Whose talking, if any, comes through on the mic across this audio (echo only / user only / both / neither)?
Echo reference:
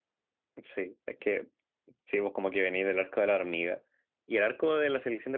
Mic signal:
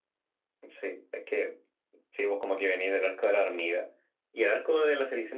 echo only